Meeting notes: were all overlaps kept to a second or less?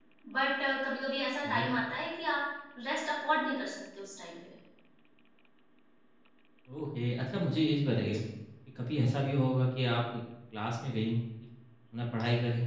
Yes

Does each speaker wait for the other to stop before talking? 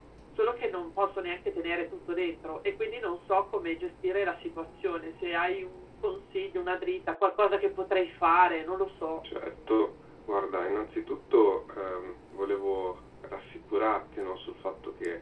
Yes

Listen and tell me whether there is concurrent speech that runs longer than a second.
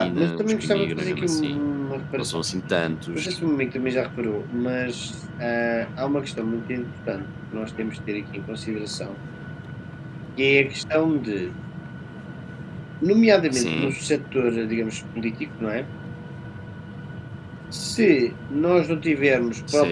Yes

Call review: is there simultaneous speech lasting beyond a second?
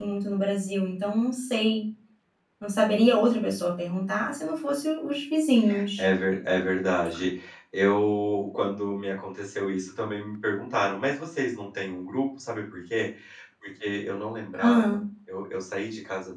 No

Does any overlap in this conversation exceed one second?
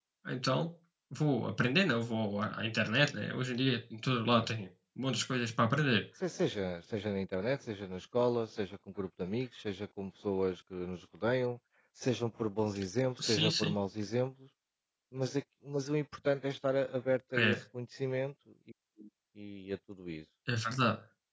No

